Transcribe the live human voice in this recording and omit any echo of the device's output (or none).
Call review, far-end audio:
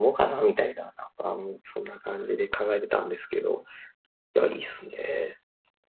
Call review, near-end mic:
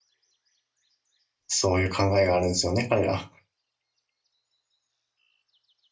そういう考えがあるんですよね、彼ら。